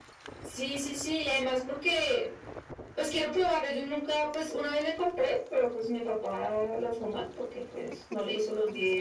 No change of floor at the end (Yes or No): Yes